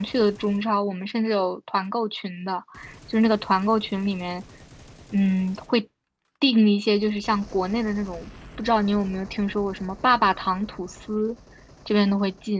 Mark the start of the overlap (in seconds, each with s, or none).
none